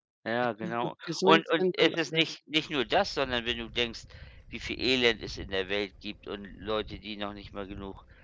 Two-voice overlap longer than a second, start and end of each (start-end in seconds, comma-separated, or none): 0.8-2.2